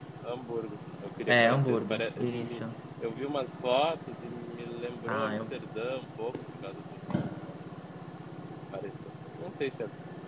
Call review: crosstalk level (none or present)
present